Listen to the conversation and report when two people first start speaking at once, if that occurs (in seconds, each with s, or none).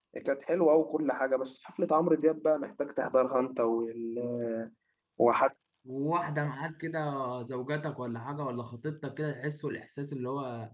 none